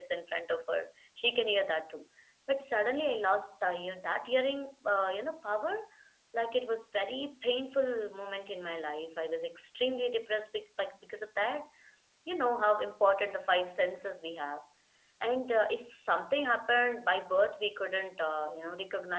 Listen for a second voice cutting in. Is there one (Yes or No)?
No